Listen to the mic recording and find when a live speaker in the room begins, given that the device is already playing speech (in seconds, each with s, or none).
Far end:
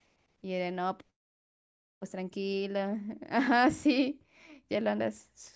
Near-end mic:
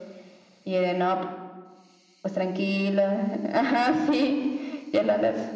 none